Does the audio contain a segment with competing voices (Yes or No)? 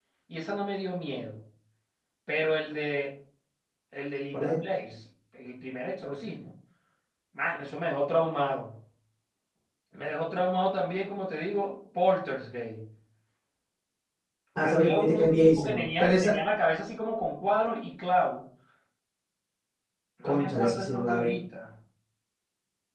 Yes